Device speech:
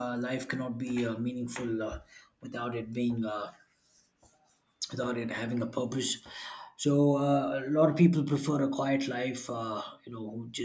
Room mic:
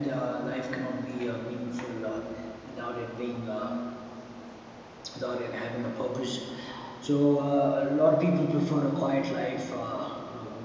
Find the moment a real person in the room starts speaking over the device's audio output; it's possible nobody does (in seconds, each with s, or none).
none